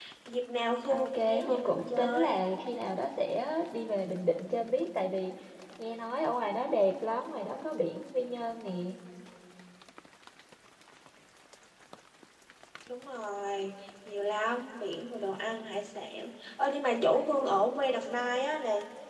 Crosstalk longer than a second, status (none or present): present